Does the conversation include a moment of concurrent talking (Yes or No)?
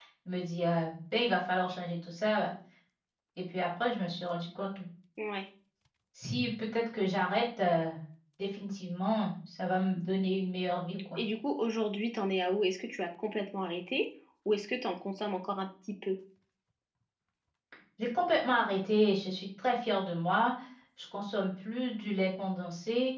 No